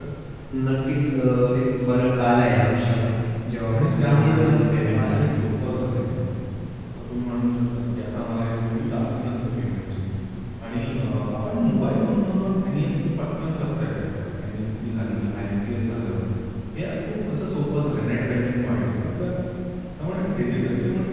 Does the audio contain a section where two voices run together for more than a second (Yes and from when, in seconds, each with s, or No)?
Yes, from 3.7 s